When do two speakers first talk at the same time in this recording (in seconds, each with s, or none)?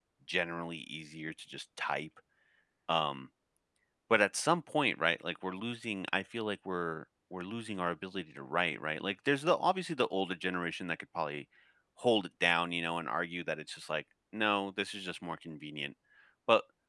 none